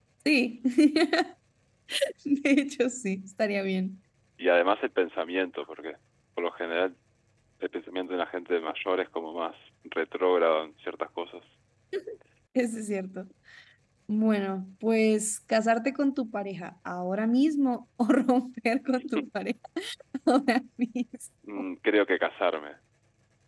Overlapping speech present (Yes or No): No